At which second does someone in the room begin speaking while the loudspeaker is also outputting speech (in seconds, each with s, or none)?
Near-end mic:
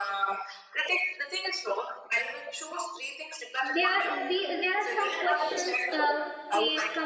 3.6 s